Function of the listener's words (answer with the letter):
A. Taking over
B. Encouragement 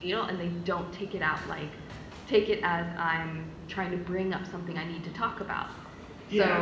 A